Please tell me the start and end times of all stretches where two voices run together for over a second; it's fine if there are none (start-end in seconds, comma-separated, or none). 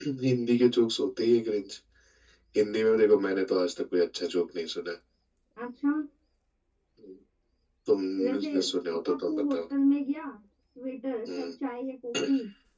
none